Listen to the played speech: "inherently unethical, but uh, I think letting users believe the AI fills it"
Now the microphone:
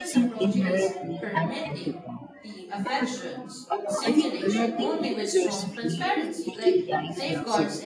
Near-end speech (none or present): present